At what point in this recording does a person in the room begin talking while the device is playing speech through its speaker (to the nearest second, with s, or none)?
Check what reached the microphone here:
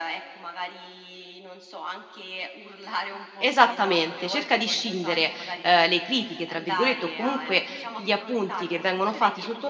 3 s